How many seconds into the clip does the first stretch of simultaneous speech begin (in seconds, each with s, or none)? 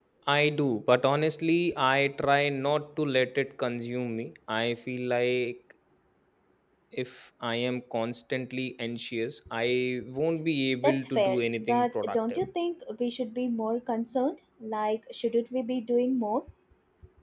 10.8 s